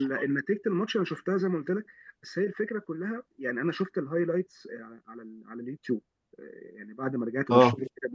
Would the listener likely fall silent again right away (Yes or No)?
Yes